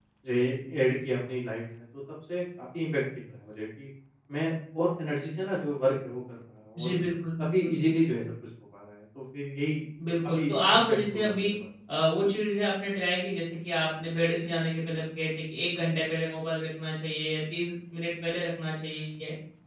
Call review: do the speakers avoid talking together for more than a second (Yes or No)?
No